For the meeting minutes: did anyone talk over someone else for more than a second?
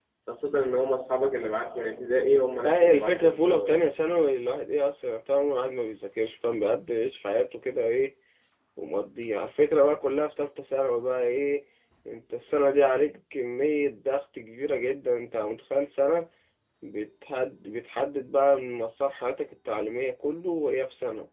Yes, from 2.6 s

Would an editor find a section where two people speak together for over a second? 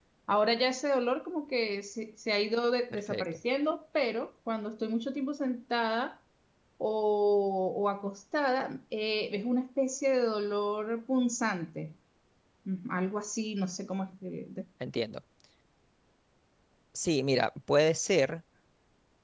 No

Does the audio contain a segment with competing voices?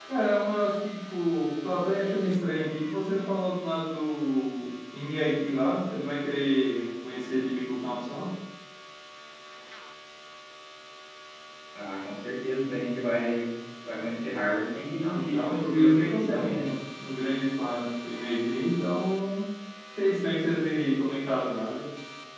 Yes, from 15.1 s

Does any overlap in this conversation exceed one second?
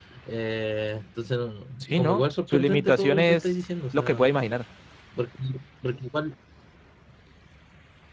Yes, from 1.8 s

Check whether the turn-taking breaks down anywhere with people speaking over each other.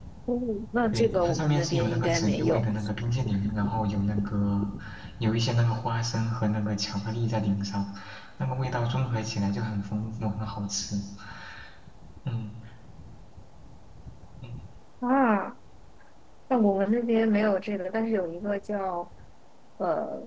Yes, from 0.9 s

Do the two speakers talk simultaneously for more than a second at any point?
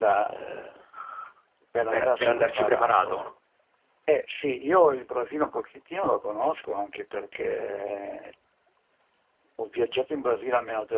Yes, from 1.9 s

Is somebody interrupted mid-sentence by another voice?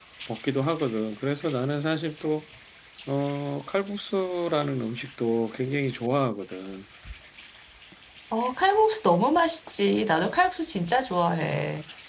No

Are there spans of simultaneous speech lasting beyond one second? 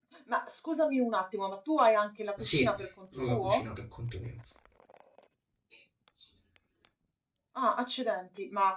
No

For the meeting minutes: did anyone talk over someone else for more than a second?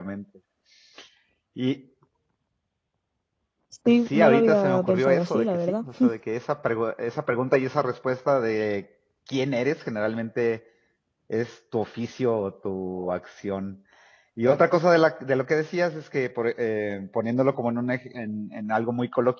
Yes, from 4.1 s

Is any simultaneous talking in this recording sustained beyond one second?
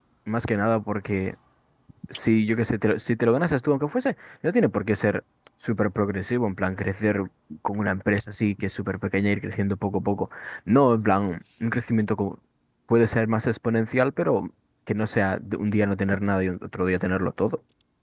No

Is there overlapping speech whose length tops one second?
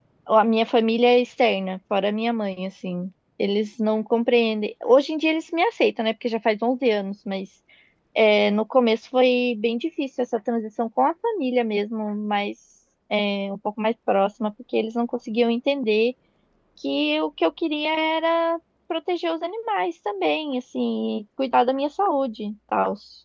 No

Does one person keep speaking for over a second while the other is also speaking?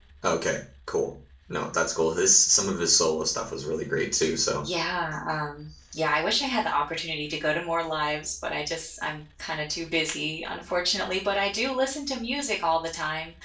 No

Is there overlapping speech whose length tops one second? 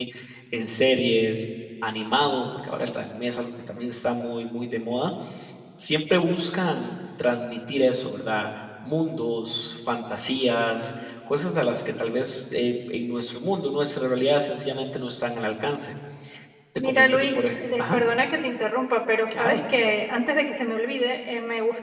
Yes, from 16.8 s

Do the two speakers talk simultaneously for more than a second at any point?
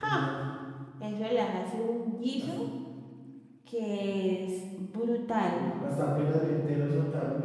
No

